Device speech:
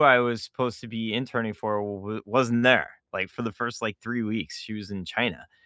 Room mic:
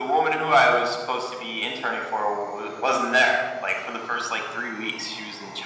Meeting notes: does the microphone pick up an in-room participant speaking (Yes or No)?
No